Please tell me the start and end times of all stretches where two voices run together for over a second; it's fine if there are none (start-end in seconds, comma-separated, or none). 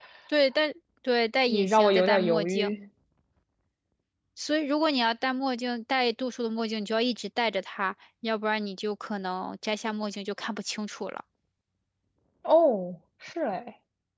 1.5-2.8